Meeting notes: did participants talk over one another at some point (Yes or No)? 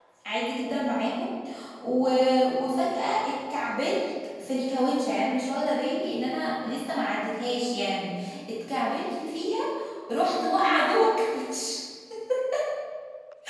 No